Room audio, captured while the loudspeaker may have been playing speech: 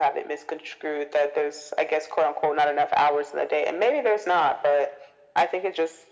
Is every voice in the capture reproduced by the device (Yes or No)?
Yes